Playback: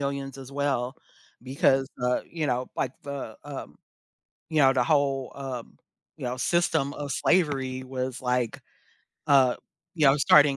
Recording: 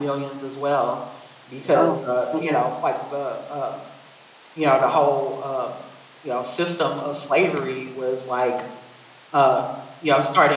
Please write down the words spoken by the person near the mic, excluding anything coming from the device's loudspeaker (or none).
Oh, it is.